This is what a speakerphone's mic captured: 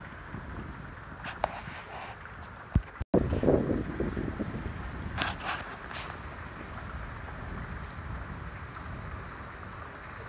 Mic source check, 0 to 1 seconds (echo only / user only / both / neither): neither